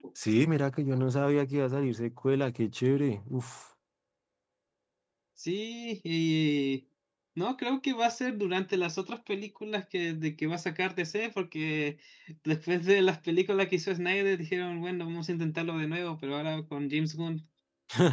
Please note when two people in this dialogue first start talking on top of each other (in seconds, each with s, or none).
none